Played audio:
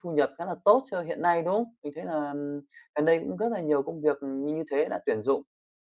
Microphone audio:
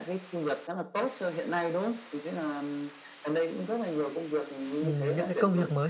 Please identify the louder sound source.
user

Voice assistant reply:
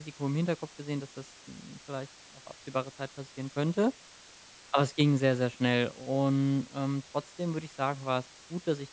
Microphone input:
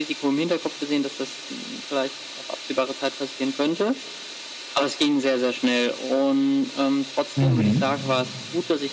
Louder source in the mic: user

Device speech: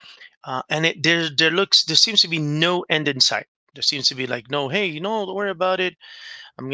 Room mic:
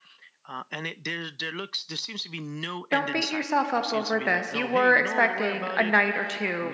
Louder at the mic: user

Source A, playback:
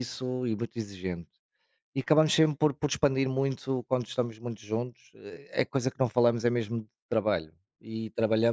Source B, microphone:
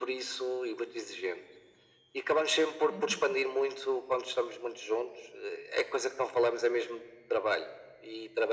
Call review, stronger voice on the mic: echo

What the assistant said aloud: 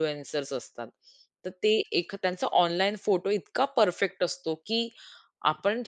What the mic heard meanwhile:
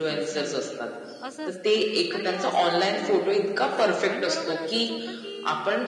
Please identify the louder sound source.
echo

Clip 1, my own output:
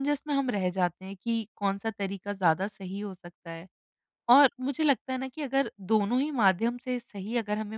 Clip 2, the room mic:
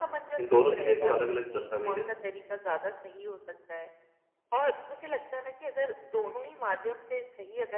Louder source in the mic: user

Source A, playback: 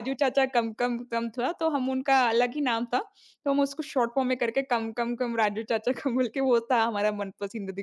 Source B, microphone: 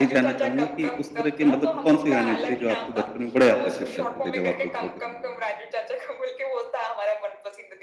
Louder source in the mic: user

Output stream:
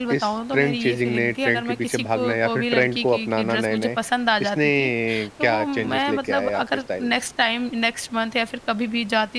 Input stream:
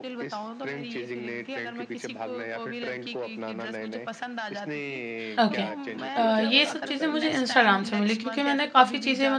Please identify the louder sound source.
user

